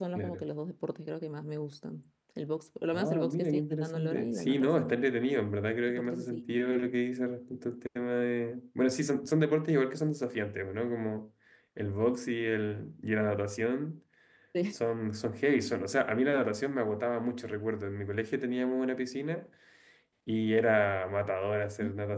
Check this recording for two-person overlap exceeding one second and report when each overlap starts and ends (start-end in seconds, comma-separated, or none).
2.9-5.0